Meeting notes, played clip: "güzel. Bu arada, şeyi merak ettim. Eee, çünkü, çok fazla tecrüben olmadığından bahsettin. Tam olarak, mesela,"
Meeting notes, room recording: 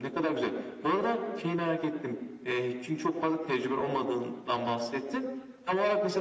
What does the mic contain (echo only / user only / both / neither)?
echo only